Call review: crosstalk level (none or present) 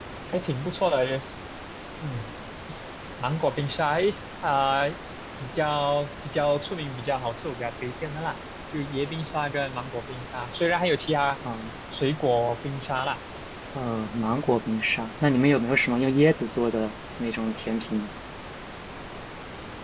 none